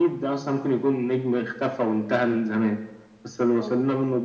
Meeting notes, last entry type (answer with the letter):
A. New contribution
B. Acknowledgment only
B